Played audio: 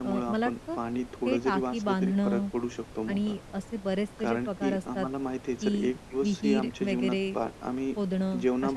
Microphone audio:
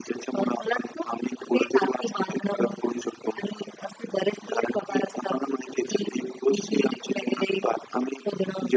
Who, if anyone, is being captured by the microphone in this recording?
echo only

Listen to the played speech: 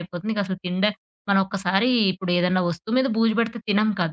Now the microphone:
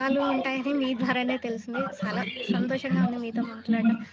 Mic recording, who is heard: both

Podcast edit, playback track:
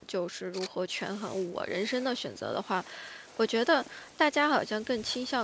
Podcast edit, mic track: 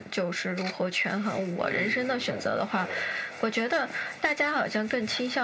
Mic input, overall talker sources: both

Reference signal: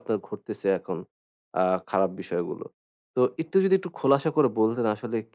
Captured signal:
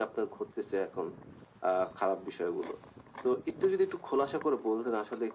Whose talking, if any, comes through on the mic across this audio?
echo only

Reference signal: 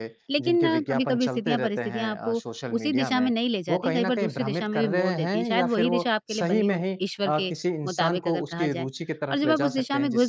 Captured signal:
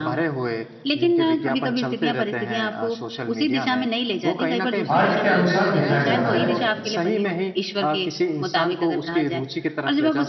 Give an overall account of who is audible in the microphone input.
both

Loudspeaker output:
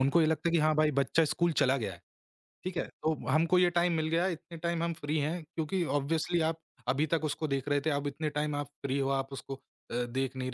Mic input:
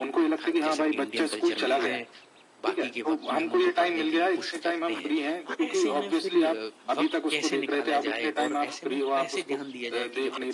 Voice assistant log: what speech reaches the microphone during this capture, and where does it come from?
both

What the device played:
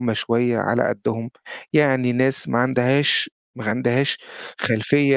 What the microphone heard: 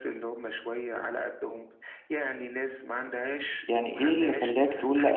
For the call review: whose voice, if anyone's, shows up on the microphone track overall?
both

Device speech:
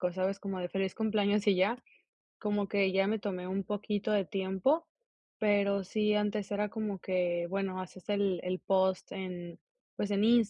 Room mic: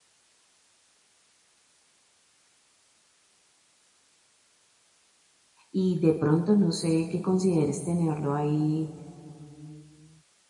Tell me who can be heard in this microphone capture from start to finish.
user only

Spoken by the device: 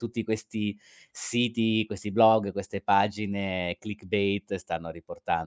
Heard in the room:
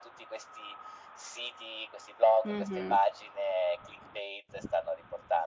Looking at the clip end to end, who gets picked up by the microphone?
both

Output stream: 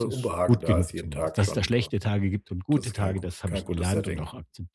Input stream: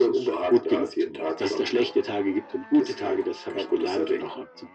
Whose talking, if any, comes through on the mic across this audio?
echo only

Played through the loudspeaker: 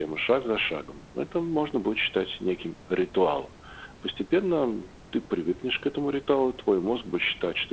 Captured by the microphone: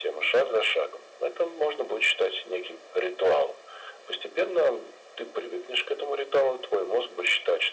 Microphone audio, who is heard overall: echo only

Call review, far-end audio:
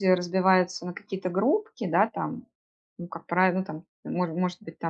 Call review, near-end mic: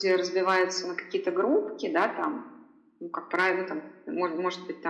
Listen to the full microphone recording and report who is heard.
echo only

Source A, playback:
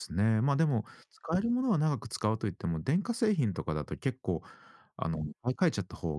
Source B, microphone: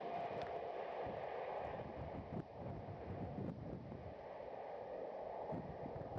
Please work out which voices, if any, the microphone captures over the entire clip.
neither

